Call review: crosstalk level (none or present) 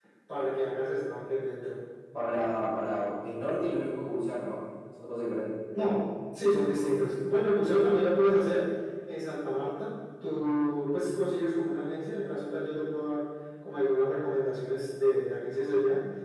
none